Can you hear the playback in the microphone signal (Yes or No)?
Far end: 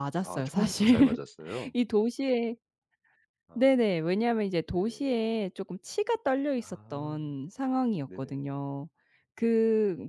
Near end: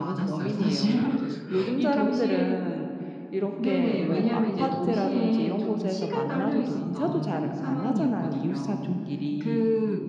Yes